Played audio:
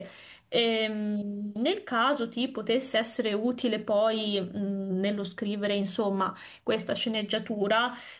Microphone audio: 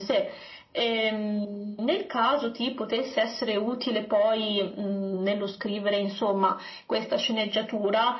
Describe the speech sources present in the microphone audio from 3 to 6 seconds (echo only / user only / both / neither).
echo only